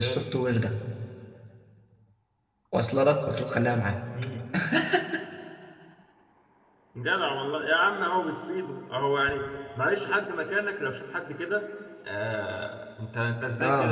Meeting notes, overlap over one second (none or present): none